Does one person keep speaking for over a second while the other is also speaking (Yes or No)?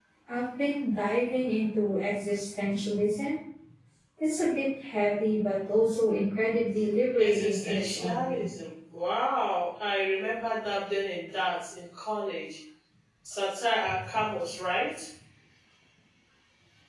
Yes